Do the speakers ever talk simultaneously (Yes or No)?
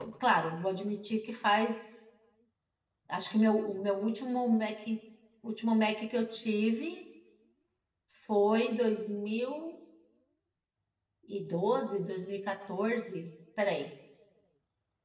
No